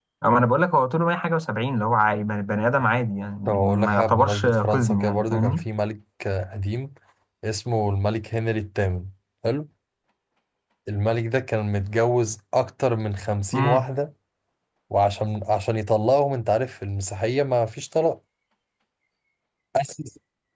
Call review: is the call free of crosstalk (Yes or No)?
No